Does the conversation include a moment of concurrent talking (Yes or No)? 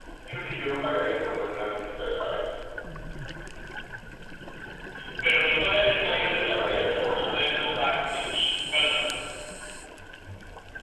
Yes